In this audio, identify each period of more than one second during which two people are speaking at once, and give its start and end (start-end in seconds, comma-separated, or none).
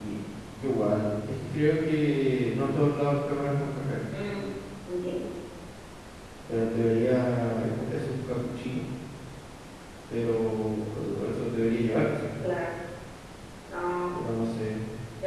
none